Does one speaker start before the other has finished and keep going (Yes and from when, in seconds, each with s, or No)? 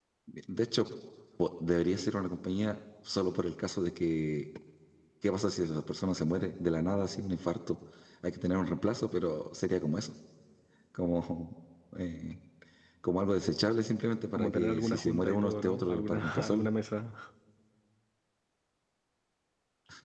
Yes, from 14.3 s